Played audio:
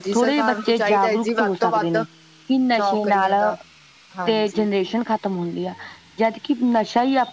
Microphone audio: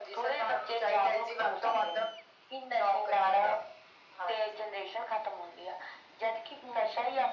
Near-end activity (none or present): none